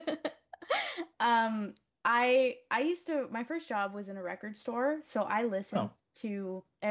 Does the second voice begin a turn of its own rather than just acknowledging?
No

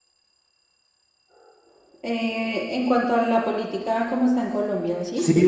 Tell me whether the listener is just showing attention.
No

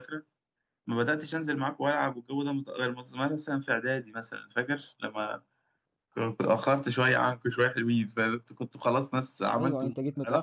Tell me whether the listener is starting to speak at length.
Yes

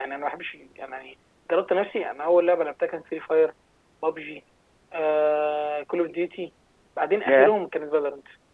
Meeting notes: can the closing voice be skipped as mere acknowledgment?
Yes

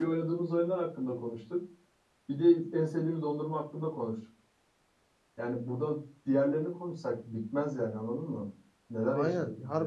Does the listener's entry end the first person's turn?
Yes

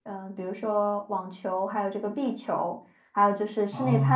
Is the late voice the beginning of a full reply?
No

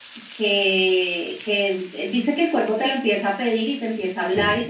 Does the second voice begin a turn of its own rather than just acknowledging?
No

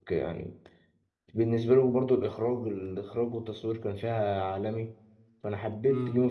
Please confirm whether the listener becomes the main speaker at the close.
Yes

